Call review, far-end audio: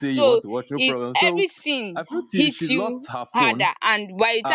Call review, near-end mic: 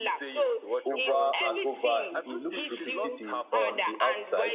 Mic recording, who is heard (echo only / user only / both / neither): both